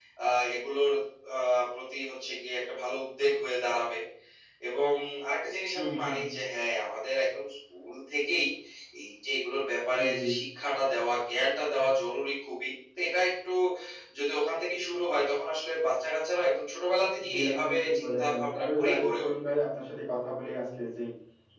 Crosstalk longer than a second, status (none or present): present